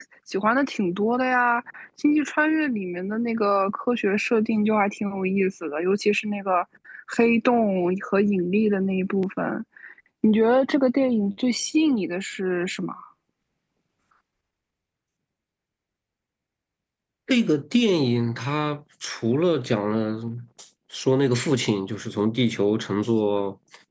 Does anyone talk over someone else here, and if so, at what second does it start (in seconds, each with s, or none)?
none